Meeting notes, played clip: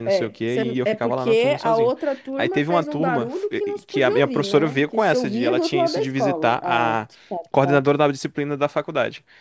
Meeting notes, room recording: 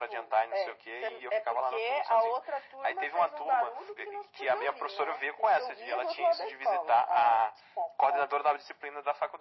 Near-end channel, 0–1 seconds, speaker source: echo only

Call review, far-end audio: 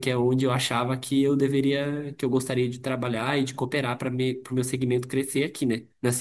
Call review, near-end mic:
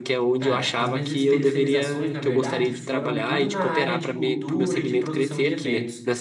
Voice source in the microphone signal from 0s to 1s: both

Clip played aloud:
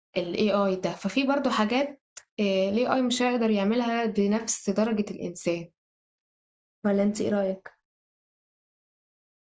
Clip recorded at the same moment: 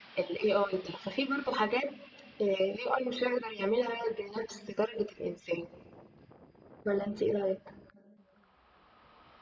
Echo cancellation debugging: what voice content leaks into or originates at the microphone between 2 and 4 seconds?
echo only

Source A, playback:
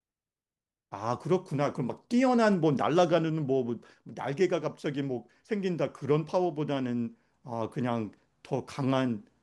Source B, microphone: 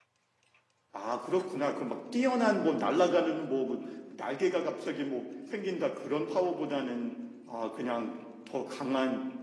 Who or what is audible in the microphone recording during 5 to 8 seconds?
echo only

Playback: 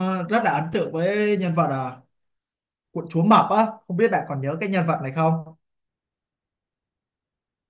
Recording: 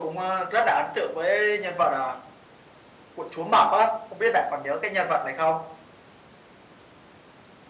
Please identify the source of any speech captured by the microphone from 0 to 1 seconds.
echo only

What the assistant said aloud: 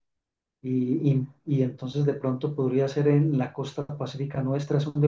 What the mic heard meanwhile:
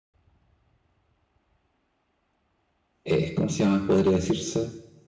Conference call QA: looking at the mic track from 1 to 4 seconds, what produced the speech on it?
user only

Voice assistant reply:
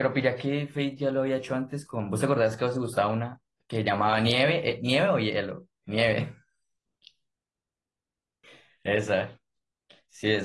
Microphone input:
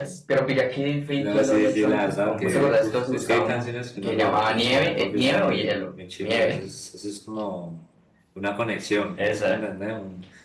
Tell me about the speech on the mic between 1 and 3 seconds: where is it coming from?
both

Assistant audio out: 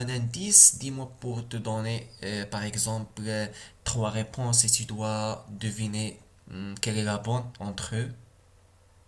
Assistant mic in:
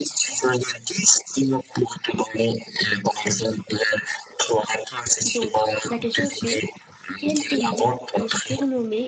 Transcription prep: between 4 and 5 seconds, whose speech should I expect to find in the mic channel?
echo only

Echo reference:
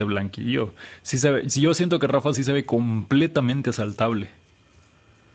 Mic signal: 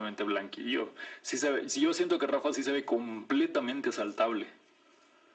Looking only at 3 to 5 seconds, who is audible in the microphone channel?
echo only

